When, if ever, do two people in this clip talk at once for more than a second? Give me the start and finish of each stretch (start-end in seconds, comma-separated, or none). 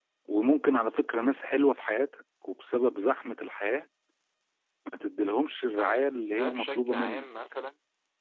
5.8-7.3